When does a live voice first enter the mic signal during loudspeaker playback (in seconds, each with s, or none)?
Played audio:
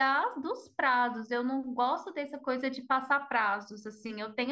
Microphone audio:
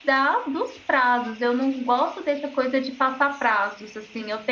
none